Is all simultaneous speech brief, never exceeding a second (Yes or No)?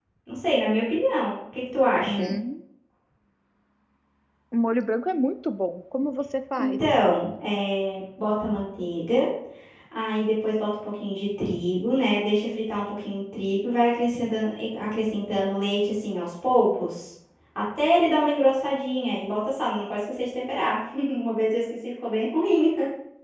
Yes